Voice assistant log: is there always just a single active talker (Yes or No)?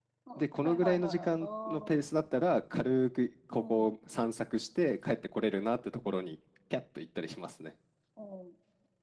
No